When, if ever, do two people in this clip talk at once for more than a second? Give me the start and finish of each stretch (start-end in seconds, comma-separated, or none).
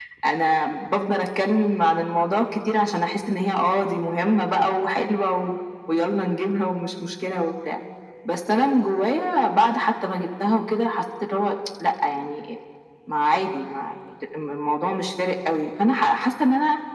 none